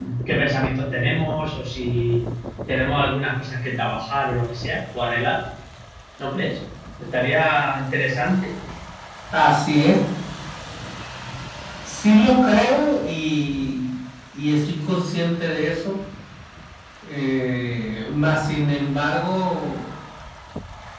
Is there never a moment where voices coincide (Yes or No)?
Yes